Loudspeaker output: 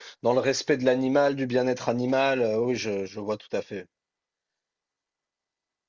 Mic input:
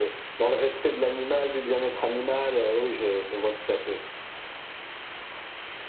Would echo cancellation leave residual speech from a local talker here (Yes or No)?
No